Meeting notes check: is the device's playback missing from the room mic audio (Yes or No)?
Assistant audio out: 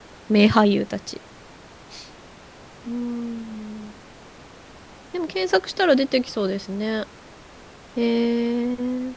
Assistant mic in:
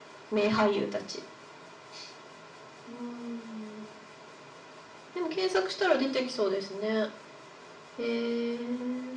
No